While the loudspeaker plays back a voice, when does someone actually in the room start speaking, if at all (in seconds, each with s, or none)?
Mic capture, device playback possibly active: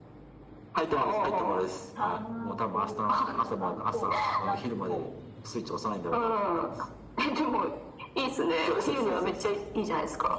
1.9 s